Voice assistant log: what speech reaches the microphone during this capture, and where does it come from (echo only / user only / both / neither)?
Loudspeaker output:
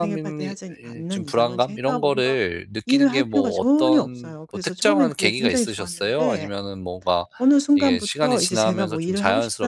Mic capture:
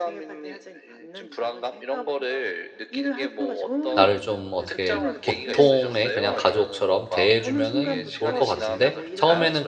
both